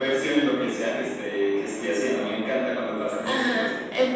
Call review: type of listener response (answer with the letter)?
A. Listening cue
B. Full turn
B